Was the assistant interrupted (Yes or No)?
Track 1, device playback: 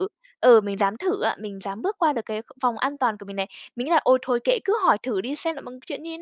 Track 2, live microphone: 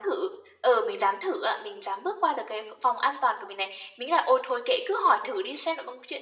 No